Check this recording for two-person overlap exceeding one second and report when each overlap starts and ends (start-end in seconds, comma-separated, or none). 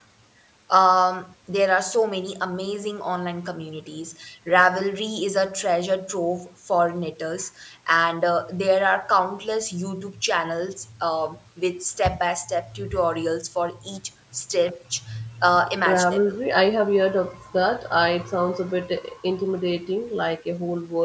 none